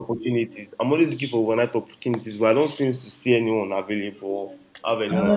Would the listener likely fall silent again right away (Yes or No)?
No